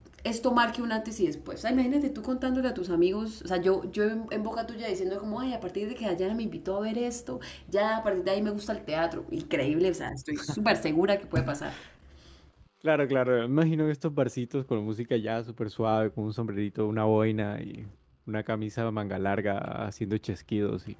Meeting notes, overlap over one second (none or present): none